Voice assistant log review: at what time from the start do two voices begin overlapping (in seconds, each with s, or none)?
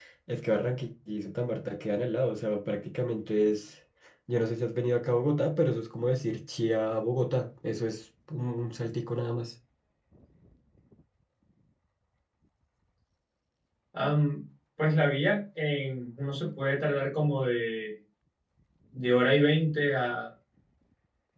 none